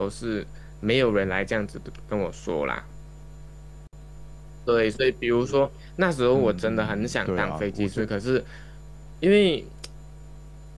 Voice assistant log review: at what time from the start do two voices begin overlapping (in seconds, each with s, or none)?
6.3 s